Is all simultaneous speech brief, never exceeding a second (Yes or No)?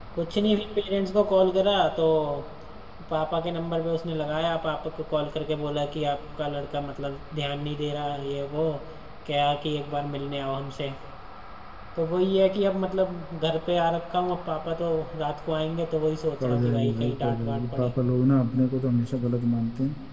No